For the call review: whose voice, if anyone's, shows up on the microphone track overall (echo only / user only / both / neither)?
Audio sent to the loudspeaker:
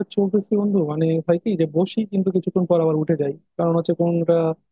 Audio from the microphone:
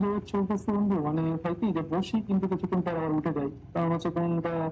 echo only